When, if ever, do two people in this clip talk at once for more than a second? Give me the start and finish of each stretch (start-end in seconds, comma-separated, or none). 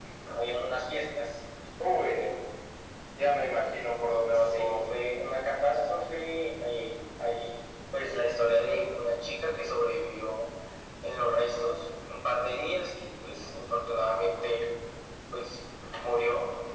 none